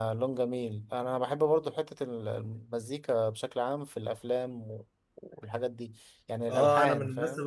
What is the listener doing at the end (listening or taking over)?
taking over